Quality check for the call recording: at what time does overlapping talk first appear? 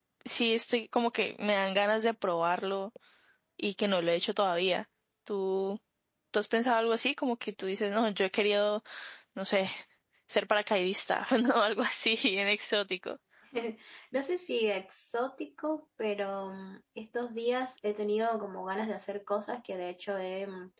none

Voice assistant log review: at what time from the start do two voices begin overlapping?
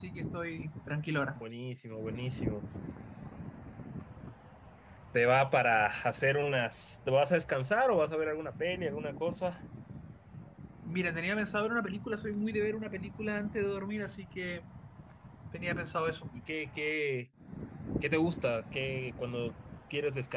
none

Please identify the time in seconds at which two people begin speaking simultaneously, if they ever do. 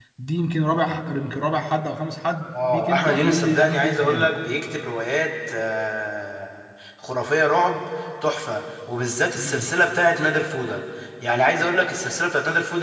2.6 s

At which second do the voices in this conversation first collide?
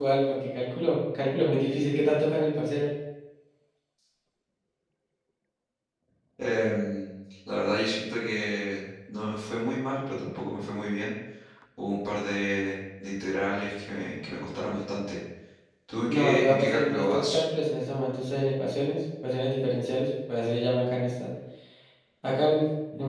16.1 s

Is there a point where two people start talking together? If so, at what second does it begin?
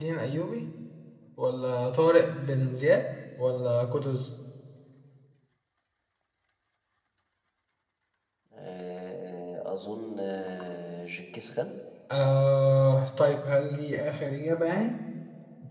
none

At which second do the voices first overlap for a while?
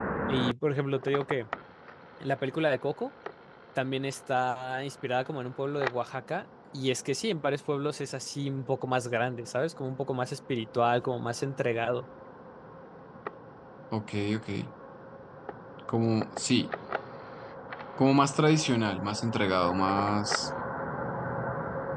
none

